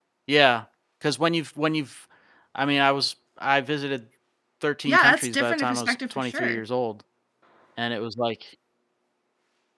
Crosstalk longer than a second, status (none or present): present